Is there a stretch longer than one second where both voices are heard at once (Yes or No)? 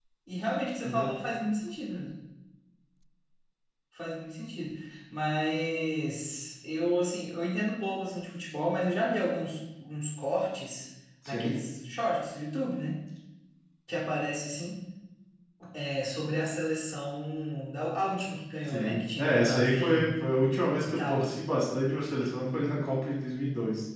Yes